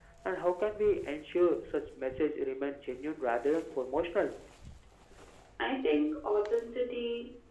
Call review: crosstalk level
none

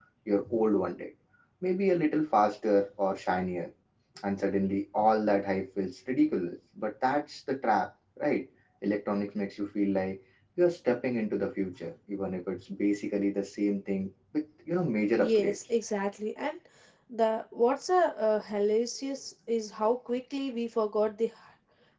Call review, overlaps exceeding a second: none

